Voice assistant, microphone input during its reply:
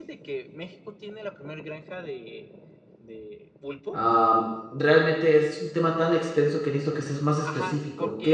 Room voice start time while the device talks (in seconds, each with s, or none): 3.9 s